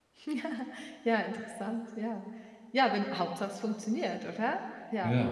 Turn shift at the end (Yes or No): No